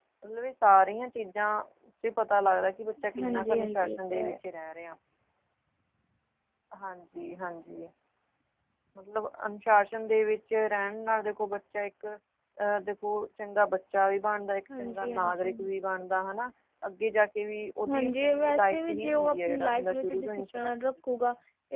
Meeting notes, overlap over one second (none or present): present